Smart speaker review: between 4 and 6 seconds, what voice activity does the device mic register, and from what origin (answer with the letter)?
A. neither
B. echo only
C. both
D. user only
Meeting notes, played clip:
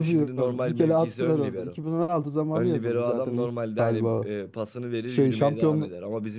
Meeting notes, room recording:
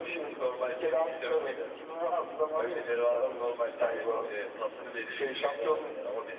B